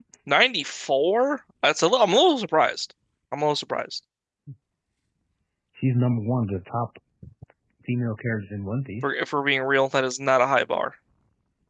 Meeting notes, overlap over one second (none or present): none